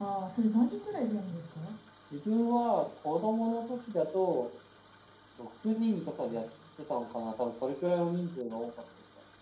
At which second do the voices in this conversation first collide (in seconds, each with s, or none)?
none